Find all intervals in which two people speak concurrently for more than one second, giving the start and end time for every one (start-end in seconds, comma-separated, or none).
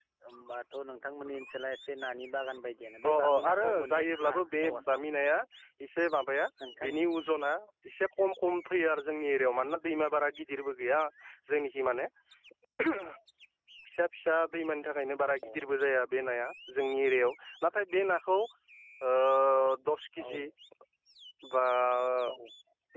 3.3-5.0